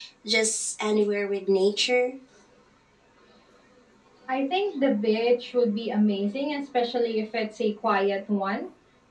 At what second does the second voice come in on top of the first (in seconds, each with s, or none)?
none